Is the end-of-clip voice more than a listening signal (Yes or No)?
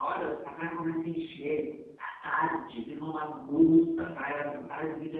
No